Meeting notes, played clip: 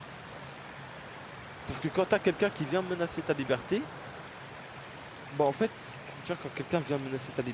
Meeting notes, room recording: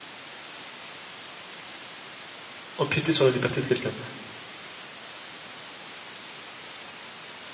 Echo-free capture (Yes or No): Yes